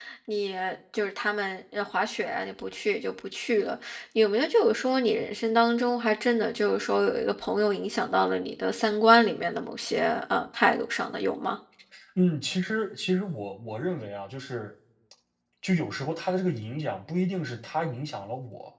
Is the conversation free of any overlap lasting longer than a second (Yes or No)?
Yes